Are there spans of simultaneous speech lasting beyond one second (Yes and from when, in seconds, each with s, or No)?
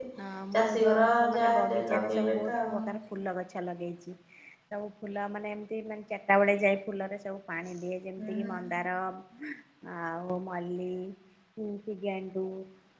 Yes, from 0.6 s